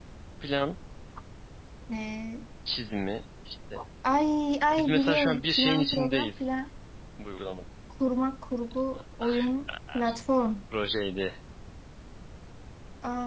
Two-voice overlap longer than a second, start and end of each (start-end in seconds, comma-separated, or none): 4.8-6.5